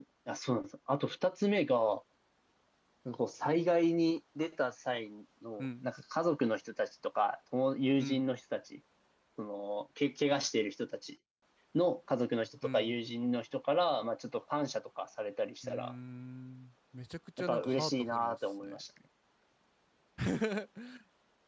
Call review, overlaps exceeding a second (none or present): present